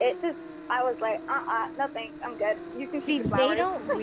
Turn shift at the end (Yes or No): Yes